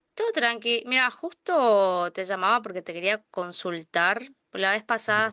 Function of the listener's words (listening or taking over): listening